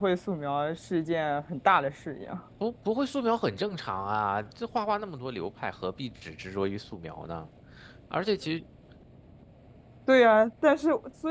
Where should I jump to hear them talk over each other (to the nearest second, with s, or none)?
none